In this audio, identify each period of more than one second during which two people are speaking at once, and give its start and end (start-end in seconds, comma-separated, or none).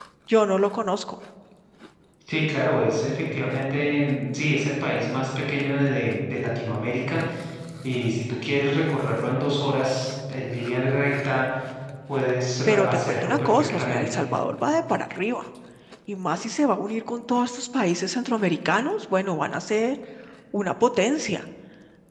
12.7-14.2